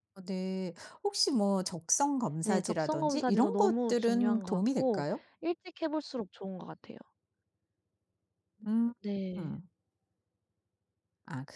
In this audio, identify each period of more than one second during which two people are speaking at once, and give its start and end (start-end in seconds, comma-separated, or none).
2.5-5.0